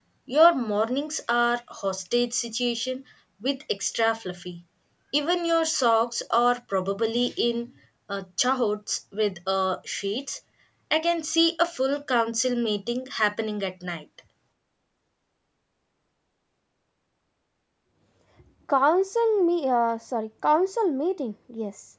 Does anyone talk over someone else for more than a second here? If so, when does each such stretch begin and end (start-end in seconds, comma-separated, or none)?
none